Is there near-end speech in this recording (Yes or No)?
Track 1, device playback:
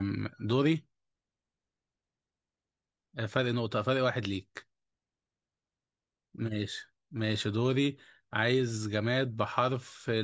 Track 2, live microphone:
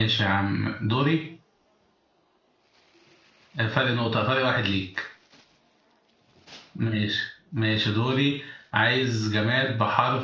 No